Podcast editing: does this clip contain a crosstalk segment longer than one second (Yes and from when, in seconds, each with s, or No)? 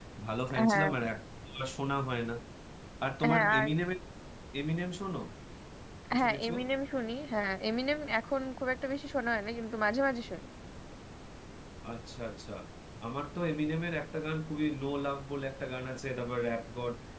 No